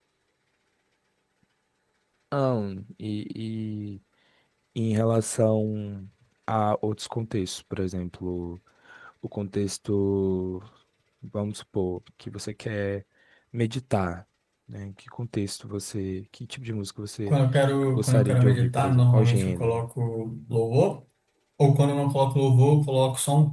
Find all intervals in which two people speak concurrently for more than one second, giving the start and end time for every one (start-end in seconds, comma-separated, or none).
17.9-19.8